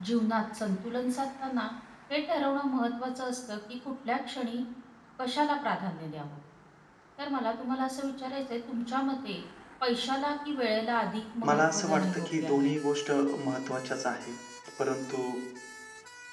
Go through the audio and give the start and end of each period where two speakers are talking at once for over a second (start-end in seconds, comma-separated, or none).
11.4-12.7